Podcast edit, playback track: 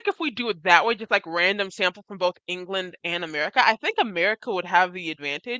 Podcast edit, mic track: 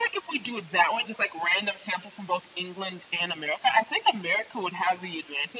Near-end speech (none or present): none